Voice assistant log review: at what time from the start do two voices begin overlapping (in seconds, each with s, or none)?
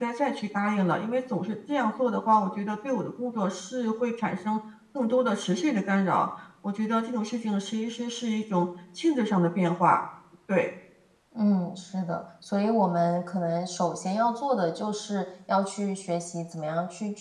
none